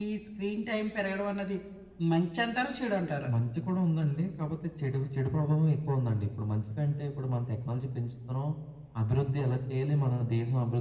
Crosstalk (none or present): none